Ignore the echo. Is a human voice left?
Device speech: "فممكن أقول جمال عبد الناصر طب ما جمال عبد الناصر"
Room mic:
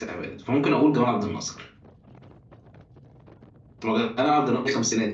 No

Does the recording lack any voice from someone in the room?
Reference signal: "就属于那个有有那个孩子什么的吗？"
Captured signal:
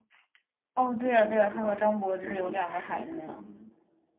No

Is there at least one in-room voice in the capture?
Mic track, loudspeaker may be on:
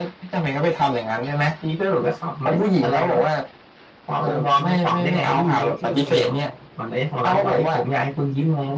Yes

